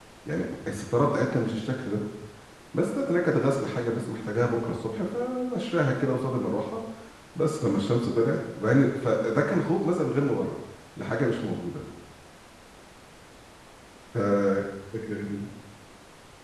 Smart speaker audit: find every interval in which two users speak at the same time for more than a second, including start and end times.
none

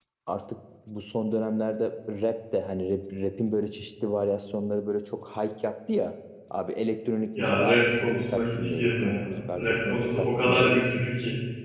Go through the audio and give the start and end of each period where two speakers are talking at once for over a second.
7.4-10.7

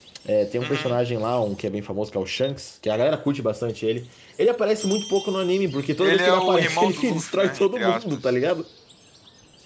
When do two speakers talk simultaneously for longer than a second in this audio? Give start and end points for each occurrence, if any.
6.0-8.3

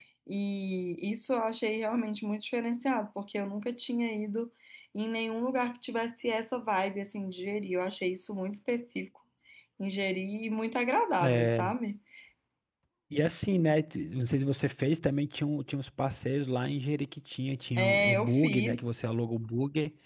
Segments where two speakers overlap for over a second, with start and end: 17.8-19.1

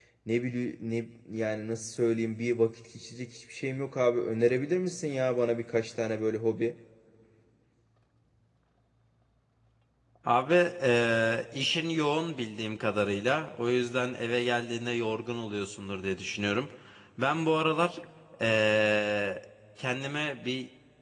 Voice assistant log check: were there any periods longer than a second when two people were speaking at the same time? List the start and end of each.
none

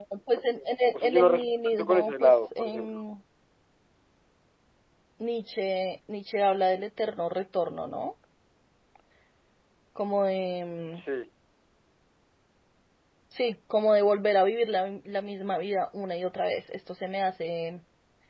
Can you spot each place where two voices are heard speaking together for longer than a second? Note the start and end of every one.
0.9-3.1

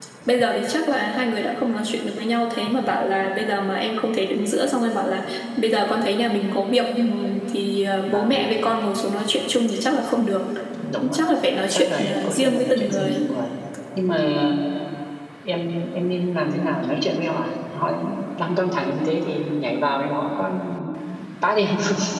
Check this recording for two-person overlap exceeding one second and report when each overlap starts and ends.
11.7-13.2

